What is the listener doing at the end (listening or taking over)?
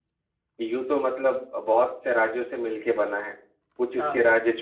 listening